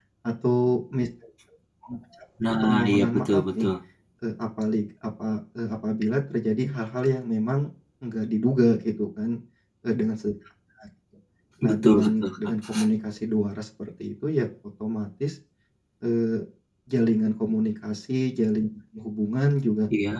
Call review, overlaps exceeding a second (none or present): present